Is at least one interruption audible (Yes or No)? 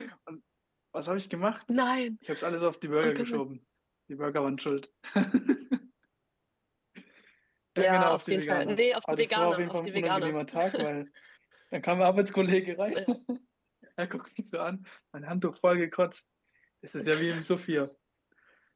Yes